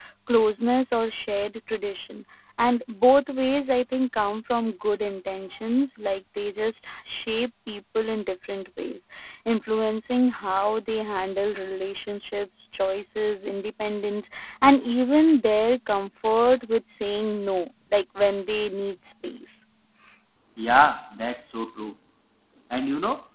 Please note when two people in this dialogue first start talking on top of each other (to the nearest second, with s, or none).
none